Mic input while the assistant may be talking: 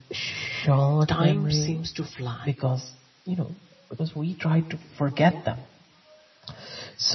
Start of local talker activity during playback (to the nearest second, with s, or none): 1 s